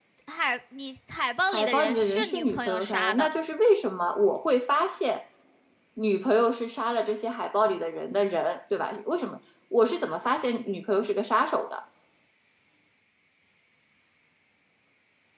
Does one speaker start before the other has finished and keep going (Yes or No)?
Yes